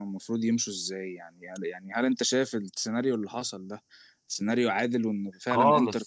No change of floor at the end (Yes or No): No